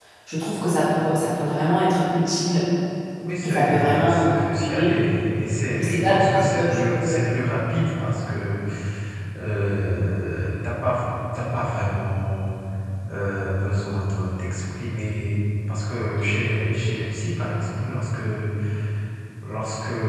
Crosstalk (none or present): present